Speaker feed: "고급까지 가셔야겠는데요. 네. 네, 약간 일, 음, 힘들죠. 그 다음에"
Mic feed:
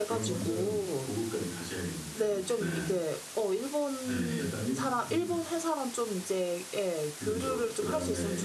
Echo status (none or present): present